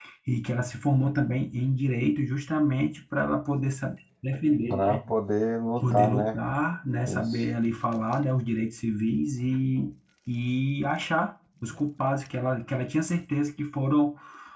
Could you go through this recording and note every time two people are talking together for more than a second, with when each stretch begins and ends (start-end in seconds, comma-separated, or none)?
none